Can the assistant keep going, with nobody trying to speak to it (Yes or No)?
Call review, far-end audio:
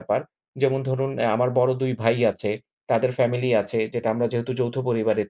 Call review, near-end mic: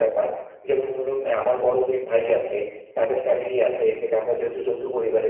Yes